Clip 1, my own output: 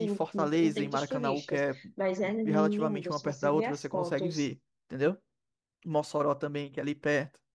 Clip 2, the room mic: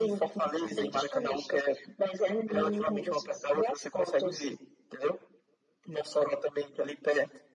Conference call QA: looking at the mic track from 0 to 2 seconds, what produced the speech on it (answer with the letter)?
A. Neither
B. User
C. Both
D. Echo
D